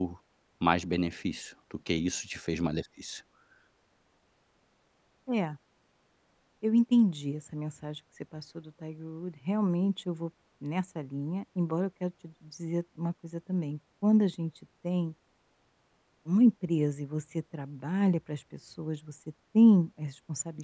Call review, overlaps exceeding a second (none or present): none